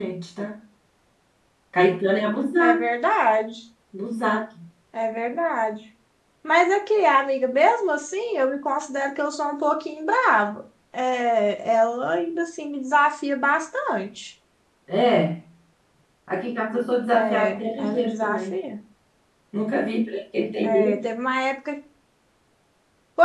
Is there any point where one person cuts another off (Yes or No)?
Yes